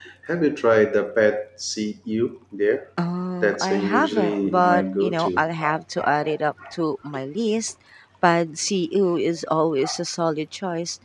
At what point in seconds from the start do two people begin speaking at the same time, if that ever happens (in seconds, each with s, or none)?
3.4 s